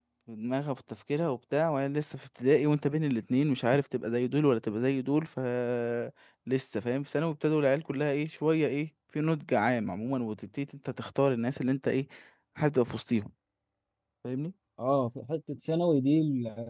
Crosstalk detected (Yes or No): No